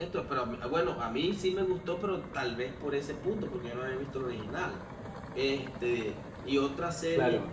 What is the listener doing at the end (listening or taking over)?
taking over